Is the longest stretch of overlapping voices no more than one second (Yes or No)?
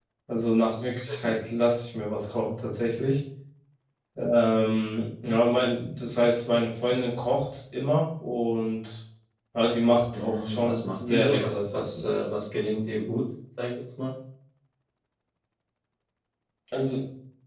No